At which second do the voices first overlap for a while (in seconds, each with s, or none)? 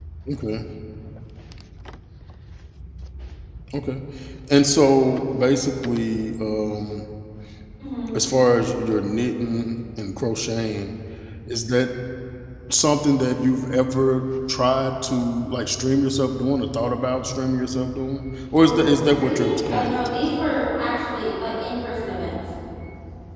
18.6 s